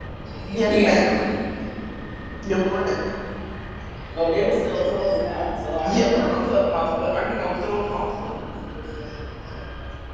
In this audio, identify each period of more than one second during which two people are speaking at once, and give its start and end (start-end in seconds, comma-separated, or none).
none